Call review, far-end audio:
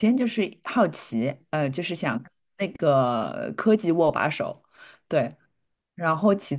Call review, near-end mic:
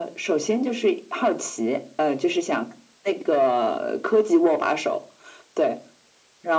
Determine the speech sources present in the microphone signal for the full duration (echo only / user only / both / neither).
echo only